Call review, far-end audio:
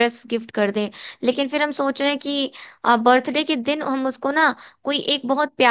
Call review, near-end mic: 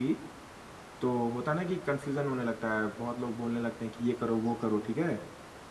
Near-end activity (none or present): present